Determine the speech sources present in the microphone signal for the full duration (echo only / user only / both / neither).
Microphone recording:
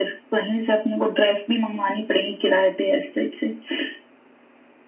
echo only